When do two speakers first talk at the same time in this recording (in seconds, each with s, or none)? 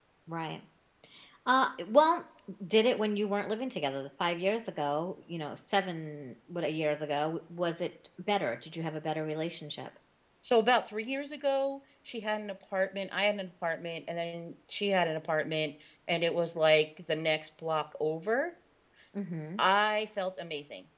none